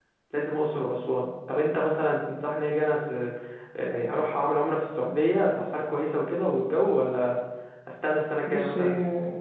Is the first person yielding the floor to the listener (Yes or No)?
Yes